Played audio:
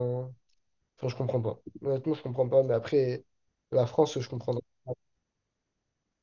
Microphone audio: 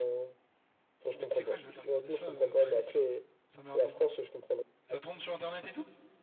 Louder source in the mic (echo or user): echo